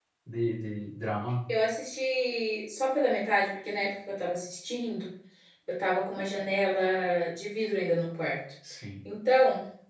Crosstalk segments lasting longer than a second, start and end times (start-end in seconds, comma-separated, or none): none